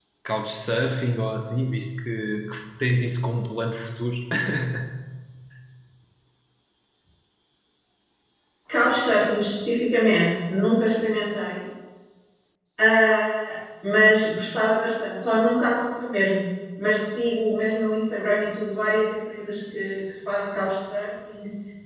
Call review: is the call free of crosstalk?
Yes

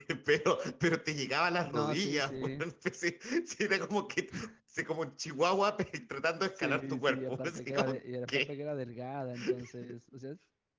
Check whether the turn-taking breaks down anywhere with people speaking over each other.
Yes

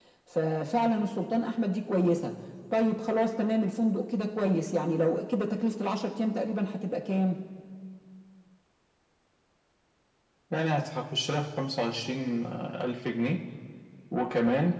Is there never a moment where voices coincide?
Yes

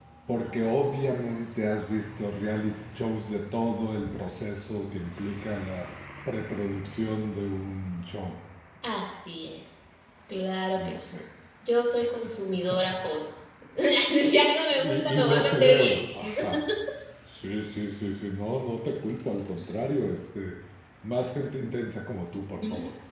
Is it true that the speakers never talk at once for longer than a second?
No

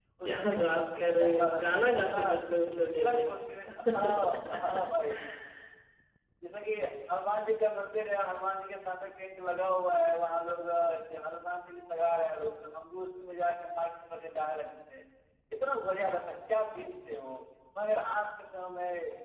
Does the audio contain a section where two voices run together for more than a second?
Yes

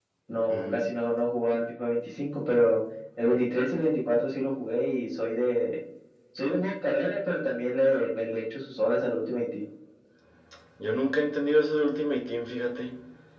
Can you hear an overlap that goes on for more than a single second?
No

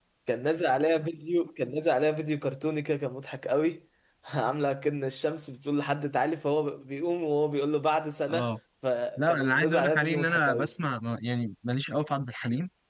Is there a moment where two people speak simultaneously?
Yes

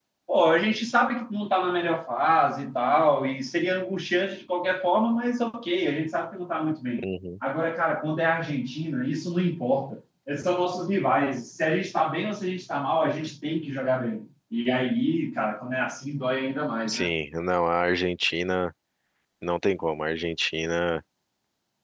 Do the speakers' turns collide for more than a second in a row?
No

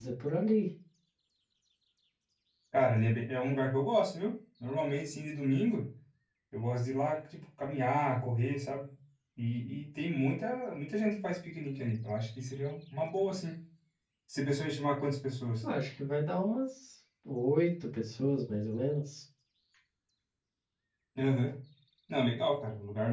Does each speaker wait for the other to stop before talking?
Yes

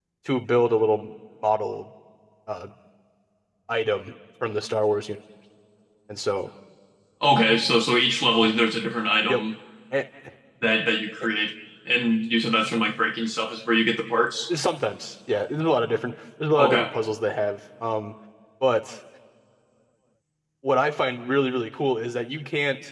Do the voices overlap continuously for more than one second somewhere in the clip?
No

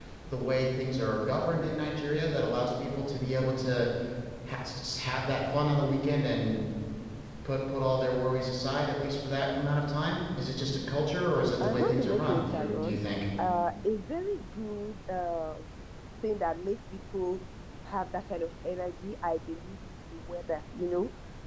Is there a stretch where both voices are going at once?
Yes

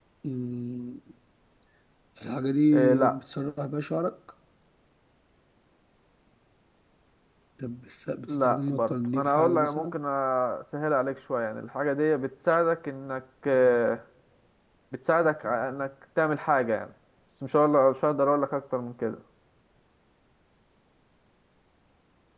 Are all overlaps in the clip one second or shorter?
No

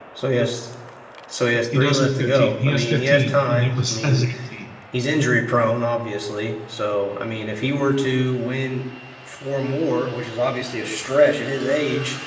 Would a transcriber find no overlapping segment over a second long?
No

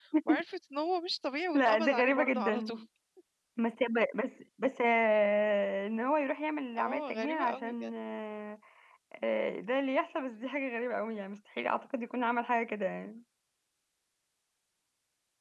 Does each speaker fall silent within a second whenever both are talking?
No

